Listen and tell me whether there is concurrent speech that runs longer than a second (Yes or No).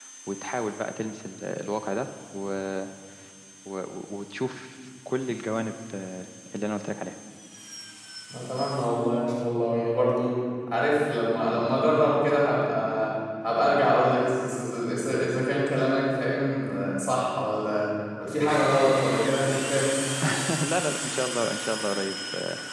No